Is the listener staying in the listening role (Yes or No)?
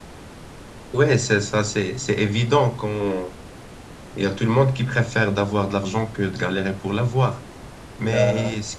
Yes